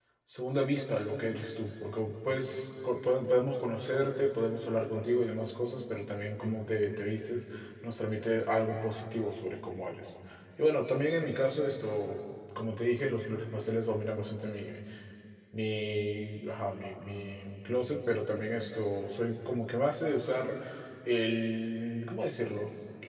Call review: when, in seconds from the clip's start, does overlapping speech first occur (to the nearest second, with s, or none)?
none